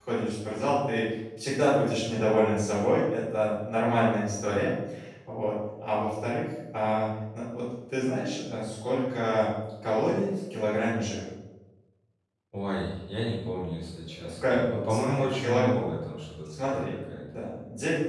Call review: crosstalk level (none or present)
present